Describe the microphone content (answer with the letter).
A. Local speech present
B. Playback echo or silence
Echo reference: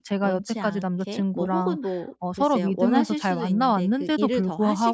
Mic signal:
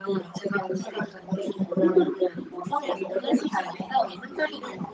B